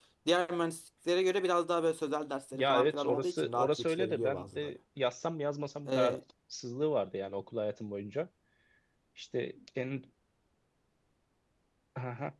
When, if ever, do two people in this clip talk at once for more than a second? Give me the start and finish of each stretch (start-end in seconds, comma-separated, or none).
2.5-4.8